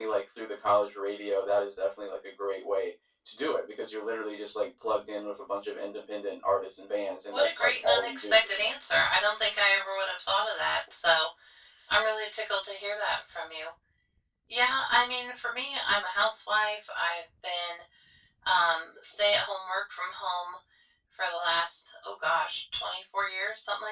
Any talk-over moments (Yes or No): Yes